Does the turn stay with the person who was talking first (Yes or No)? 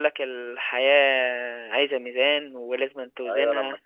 No